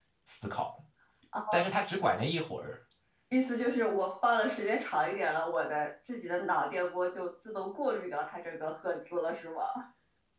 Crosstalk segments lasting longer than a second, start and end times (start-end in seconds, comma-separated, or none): none